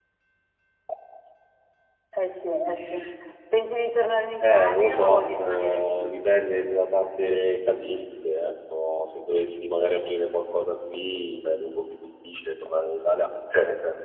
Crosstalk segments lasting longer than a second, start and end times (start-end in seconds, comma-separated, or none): 4.4-6.0